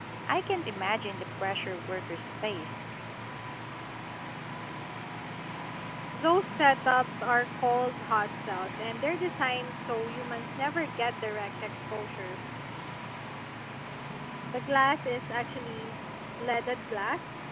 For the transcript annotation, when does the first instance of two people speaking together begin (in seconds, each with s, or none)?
none